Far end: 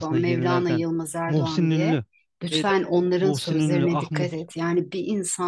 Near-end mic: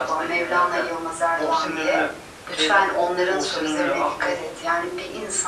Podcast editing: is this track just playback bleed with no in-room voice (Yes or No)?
Yes